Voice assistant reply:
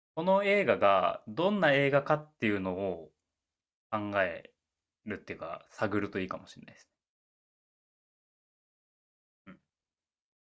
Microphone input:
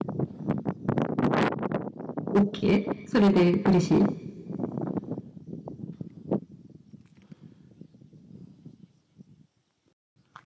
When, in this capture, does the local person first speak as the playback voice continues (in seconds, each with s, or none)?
2.3 s